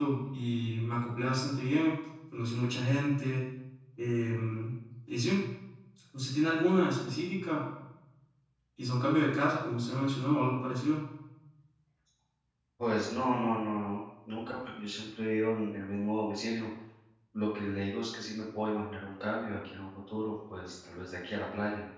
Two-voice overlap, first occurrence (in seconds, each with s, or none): none